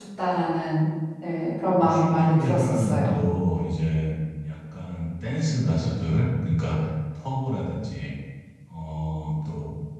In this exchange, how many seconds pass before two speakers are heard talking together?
1.8 s

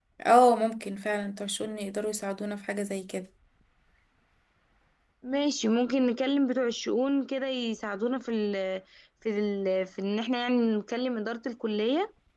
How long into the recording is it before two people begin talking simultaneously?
none

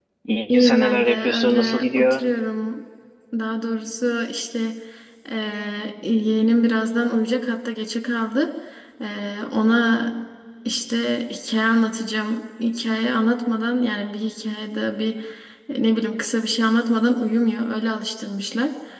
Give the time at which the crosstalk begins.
0.5 s

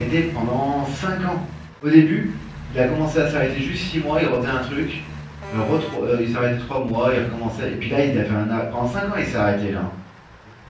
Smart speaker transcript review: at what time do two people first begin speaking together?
none

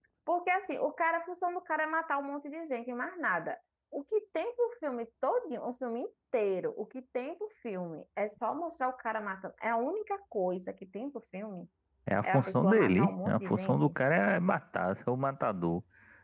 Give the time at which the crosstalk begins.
12.2 s

